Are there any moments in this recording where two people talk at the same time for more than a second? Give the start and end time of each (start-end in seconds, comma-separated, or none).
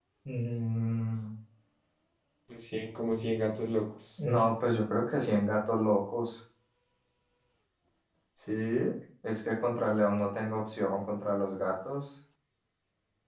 none